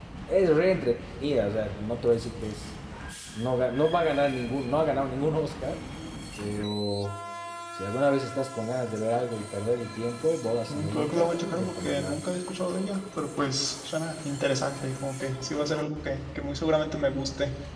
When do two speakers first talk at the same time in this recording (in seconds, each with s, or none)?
10.7 s